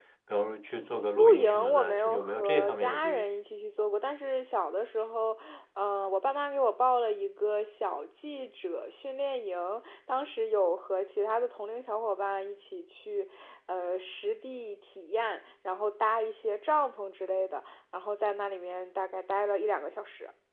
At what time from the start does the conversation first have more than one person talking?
1.2 s

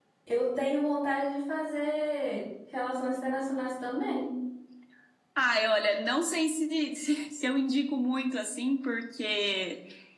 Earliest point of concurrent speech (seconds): none

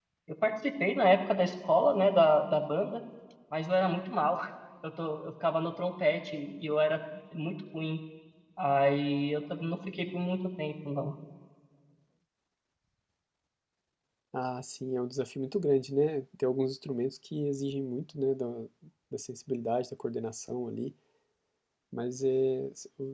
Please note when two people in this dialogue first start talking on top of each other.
none

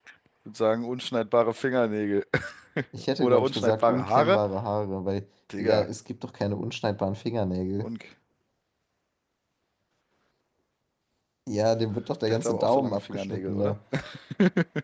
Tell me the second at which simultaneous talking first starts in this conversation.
3.2 s

